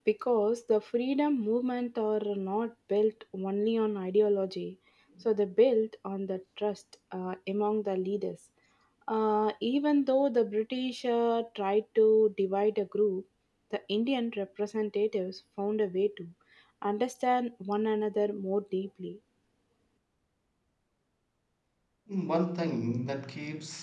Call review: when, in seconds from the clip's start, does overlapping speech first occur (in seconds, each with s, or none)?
none